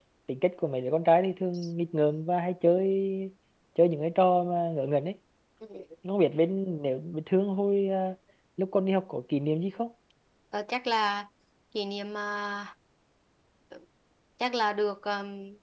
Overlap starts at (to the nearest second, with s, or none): none